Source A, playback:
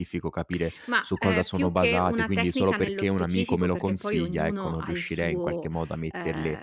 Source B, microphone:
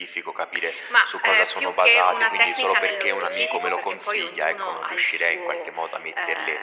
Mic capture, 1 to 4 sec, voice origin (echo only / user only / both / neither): echo only